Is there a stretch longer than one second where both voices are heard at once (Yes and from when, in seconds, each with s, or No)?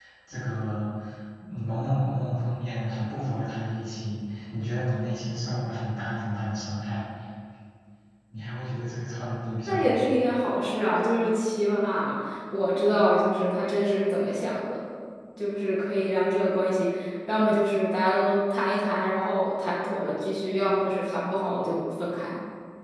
No